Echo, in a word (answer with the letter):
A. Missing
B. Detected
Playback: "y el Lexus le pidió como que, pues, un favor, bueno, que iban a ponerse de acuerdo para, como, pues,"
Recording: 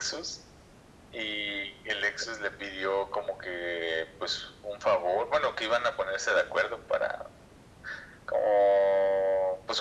B